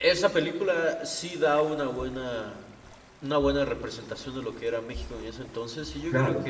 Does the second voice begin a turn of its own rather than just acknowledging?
No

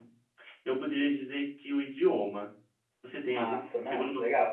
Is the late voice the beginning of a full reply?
Yes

